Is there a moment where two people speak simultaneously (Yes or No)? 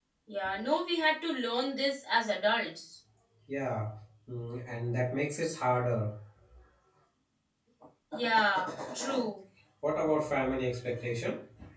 No